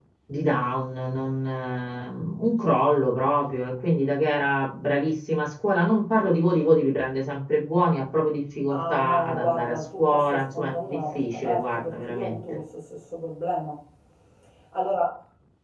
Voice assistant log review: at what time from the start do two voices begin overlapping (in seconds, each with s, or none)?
8.7 s